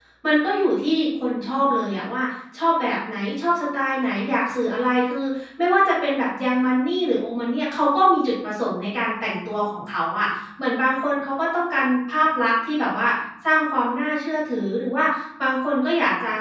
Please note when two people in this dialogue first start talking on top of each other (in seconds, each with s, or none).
none